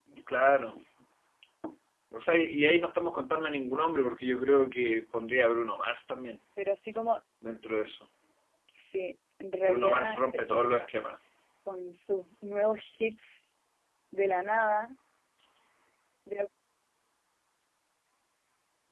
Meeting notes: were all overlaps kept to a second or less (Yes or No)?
No